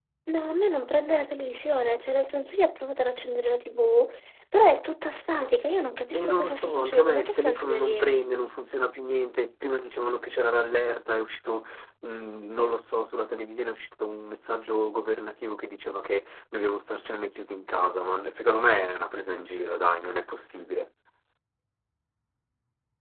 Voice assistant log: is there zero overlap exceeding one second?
No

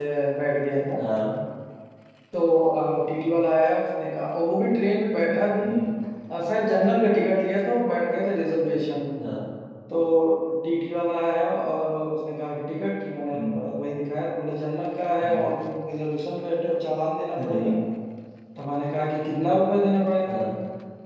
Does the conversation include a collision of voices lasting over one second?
No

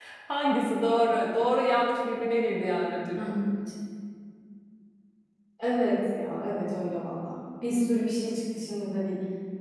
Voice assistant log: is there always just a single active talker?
Yes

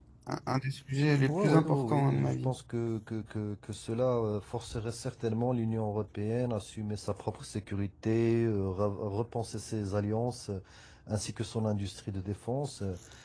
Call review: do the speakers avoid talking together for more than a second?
No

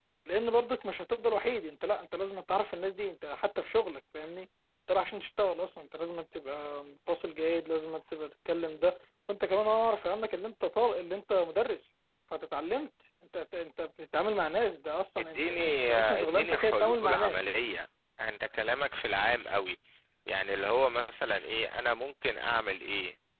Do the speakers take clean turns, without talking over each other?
No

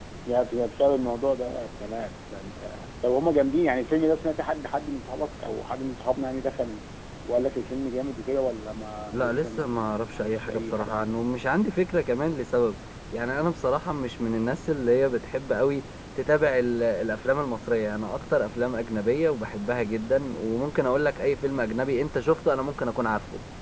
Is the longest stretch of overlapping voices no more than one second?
No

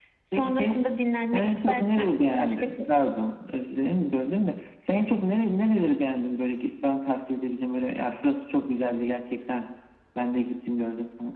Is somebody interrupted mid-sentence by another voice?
Yes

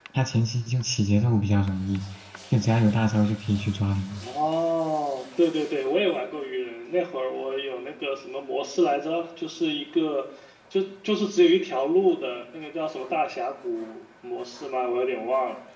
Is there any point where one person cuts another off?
No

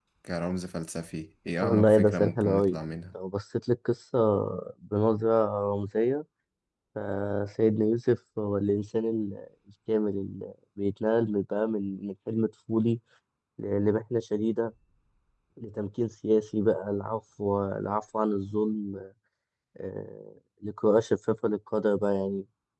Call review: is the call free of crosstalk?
No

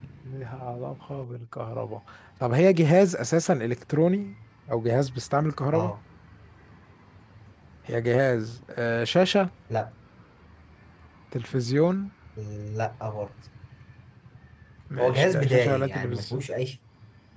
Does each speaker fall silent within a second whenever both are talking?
No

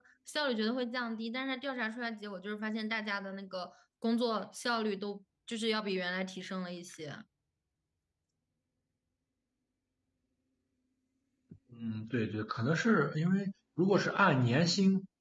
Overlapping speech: No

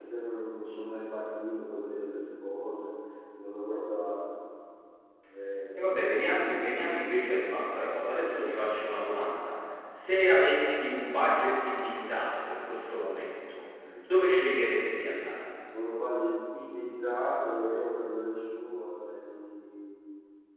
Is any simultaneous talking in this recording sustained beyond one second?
No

